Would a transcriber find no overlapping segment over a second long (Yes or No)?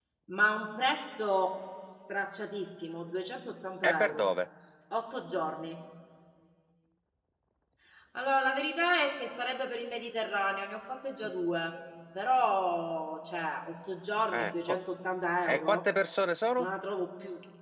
Yes